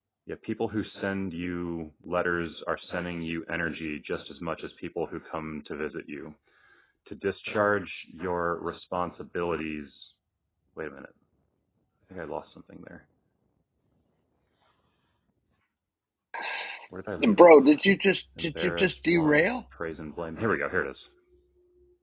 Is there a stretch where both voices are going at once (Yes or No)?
Yes